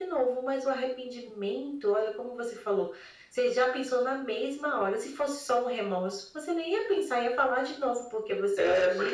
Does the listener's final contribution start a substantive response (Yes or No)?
Yes